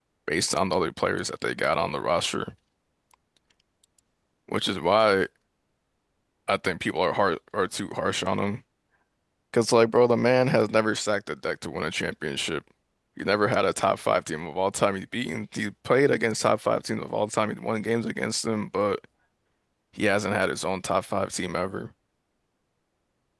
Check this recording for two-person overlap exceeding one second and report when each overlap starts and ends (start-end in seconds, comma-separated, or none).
none